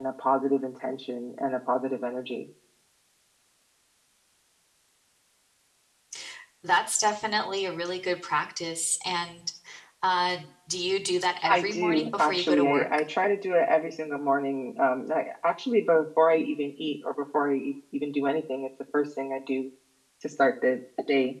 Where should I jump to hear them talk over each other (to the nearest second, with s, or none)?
11 s